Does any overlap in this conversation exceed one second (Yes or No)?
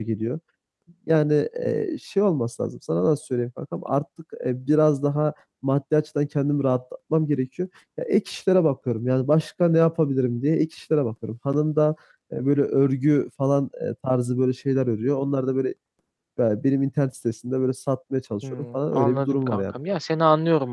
Yes